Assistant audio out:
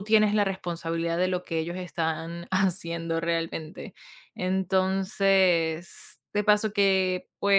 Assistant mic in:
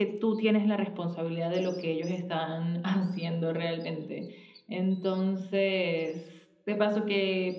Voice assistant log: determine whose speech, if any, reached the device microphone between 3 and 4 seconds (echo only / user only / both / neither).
echo only